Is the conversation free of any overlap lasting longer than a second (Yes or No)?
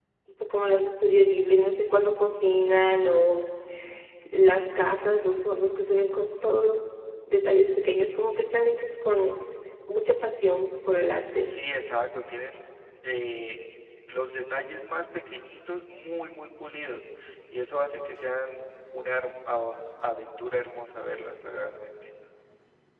Yes